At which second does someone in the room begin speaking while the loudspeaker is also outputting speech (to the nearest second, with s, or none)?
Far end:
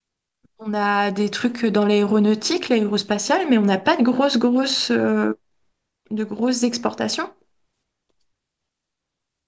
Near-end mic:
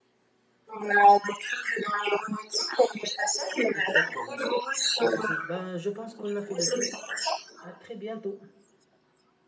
4 s